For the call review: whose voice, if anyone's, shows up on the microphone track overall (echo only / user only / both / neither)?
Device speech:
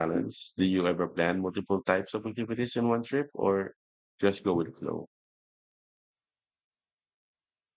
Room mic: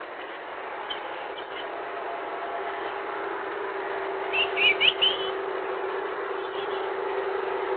neither